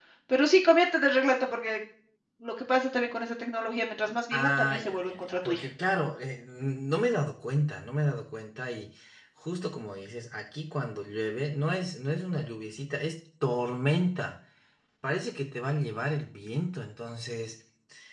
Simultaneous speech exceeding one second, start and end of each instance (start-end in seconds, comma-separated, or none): 4.3-5.7